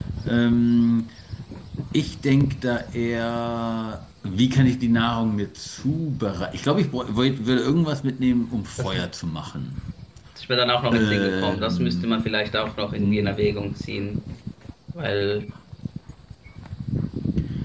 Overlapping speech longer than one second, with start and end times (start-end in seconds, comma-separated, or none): 10.9-12.2